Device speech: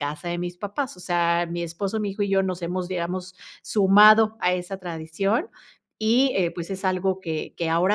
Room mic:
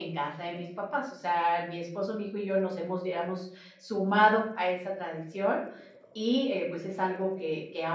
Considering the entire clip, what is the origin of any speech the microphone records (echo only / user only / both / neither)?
echo only